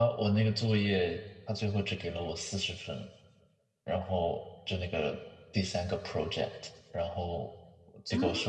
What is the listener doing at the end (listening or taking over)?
listening